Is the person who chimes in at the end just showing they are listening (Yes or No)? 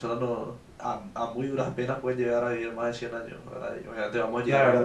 No